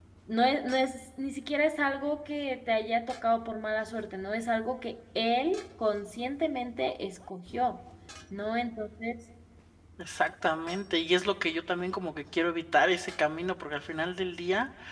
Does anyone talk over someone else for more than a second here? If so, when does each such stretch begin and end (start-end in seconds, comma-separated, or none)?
none